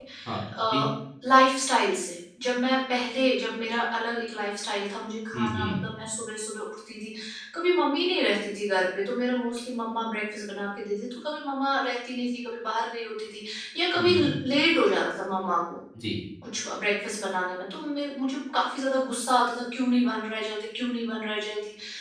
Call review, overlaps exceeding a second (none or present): none